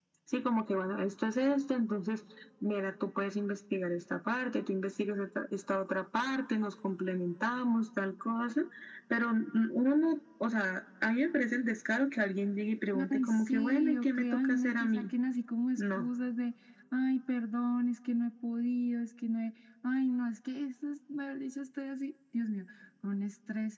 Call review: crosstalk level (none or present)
present